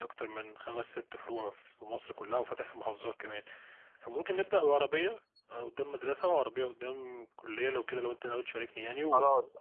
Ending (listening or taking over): taking over